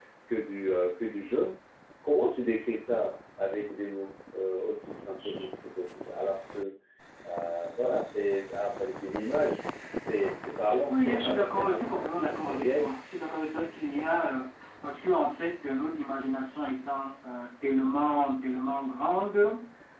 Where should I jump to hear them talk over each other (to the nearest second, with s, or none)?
11 s